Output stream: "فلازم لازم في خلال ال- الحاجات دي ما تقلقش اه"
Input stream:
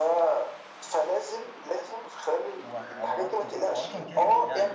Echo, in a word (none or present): present